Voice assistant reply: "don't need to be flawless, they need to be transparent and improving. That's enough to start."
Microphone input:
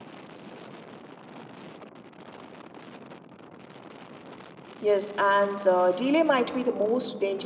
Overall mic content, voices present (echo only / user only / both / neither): user only